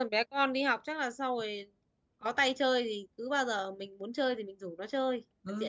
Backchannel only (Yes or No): No